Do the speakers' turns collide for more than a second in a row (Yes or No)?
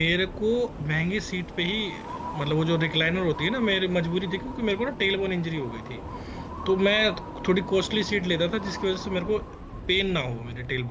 No